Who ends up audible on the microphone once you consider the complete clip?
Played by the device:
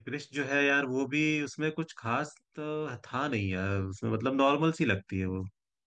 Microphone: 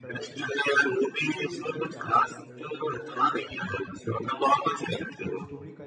both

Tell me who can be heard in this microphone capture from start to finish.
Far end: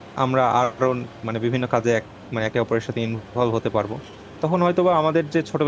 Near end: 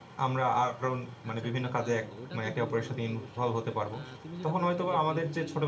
both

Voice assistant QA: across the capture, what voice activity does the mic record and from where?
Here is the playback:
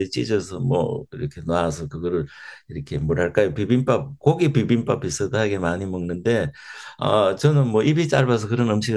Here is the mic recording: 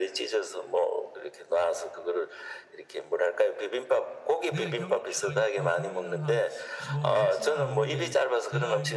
both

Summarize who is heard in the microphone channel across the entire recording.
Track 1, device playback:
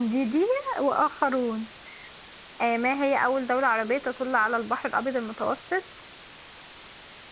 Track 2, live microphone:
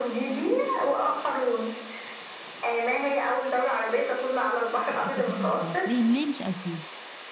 both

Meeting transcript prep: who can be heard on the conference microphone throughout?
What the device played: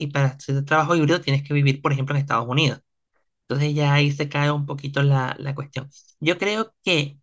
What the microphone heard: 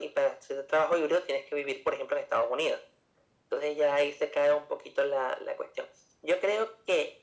echo only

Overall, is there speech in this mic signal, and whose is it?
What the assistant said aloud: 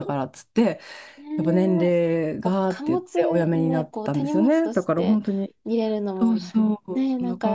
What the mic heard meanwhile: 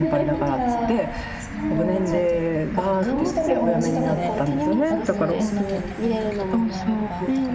both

